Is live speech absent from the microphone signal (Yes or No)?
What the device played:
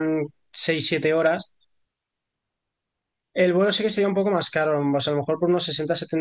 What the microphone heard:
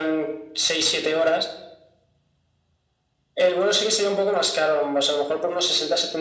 Yes